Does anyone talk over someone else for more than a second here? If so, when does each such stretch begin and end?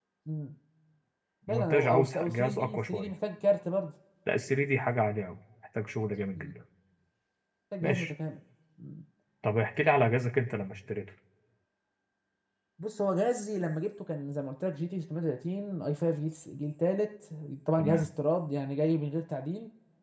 1.5-3.1

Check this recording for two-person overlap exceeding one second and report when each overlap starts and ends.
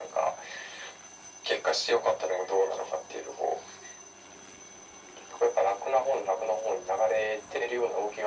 none

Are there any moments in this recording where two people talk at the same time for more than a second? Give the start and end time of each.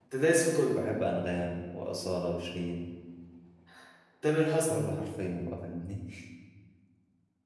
none

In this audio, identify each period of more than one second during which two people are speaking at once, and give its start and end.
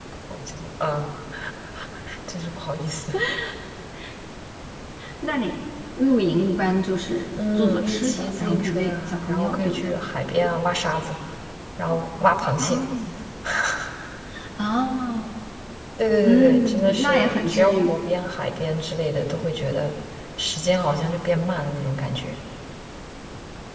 7.4-9.9, 16.2-18.0

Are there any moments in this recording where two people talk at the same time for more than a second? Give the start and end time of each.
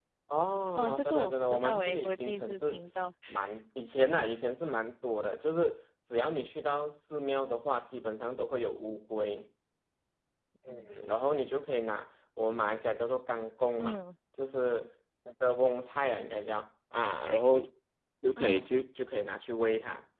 0.8-2.8

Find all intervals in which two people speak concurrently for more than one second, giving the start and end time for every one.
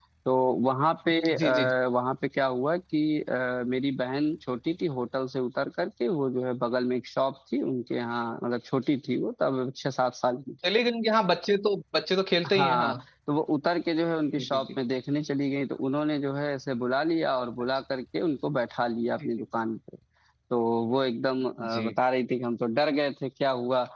none

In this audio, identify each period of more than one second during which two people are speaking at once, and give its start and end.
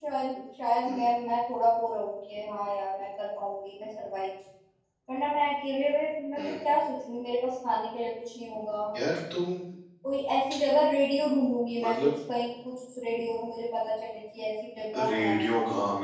none

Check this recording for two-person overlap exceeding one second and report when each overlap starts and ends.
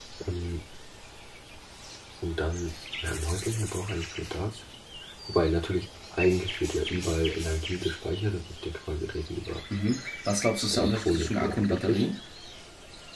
10.7-12.0

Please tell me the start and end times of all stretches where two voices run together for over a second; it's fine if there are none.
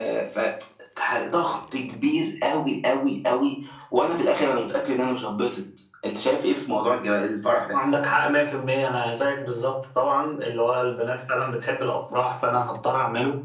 none

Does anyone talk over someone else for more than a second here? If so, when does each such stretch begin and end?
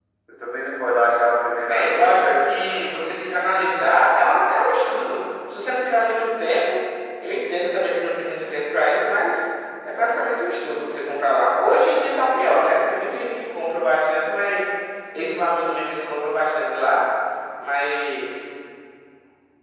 1.7-2.9

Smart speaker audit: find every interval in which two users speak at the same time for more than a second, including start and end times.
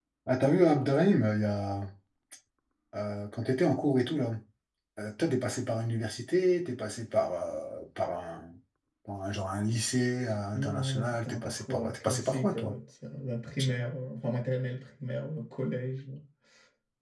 10.5-12.7

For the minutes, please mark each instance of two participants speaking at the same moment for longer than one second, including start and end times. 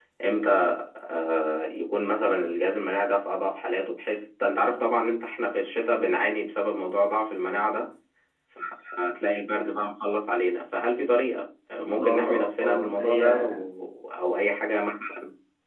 11.9-13.5

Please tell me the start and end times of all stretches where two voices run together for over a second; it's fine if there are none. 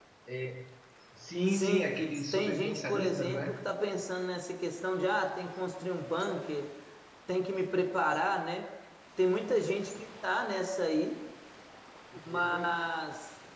2.3-3.6

